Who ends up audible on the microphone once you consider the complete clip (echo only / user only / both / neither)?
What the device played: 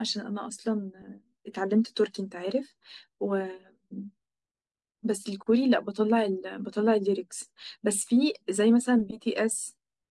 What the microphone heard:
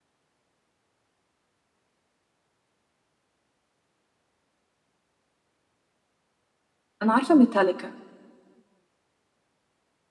user only